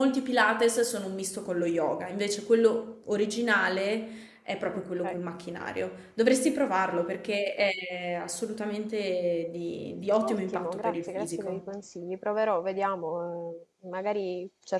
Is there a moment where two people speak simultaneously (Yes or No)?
Yes